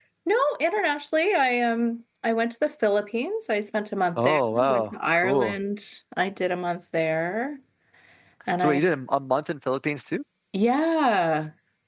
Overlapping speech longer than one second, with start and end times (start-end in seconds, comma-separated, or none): 4.2-5.6